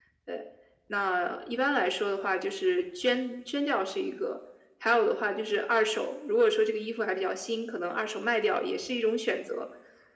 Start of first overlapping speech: none

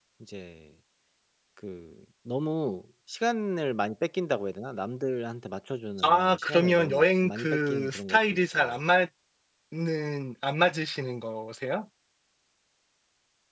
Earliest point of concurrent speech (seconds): 6.0 s

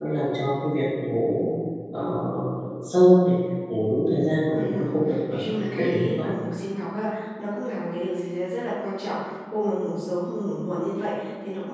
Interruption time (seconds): 4.5 s

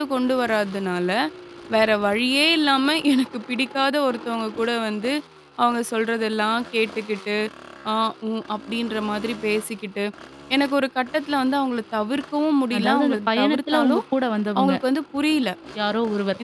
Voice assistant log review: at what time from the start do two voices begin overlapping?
12.7 s

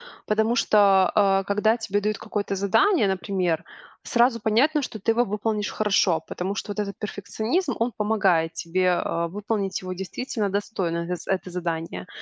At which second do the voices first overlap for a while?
none

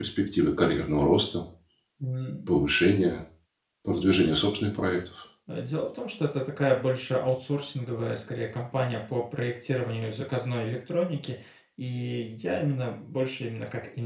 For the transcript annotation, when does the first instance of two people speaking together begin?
none

